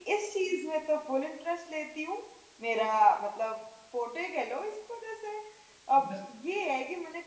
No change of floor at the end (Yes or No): Yes